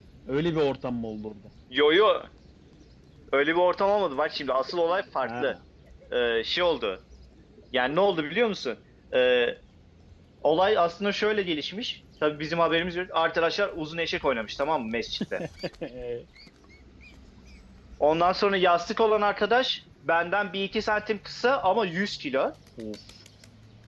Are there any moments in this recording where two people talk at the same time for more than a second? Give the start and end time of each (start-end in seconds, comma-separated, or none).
none